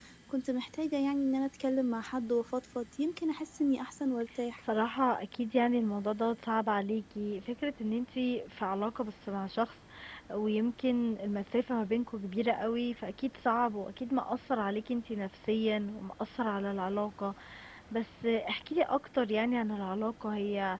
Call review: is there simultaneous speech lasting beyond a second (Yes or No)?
No